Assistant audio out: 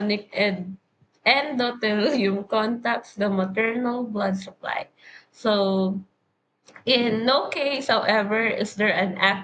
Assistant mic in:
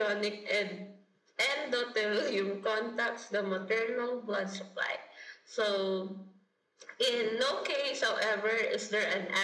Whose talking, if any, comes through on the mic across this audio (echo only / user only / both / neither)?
echo only